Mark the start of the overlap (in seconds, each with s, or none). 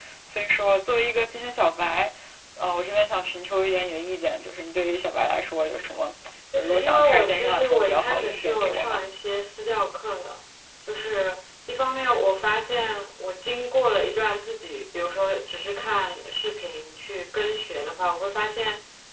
6.5 s